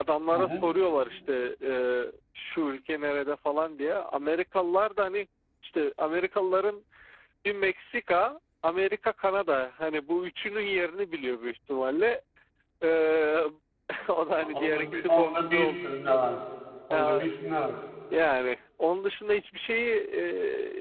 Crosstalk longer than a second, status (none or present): present